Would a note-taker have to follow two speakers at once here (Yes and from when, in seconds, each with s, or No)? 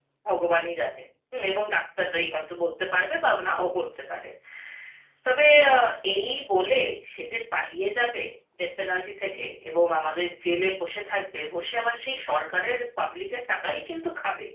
No